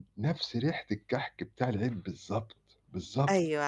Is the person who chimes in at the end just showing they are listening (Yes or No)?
No